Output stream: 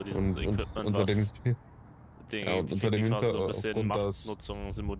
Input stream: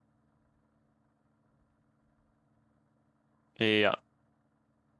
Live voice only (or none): ja,